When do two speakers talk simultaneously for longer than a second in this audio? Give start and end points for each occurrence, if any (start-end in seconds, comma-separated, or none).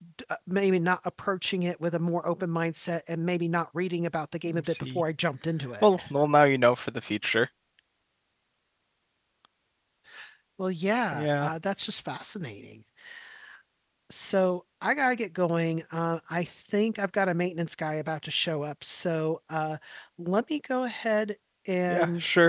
none